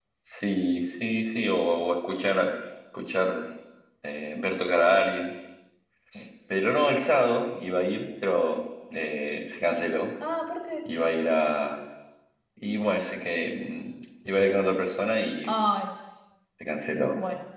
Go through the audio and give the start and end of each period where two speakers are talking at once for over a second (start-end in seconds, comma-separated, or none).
none